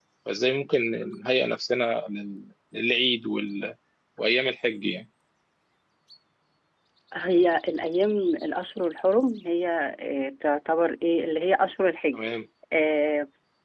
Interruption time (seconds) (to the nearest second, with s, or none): none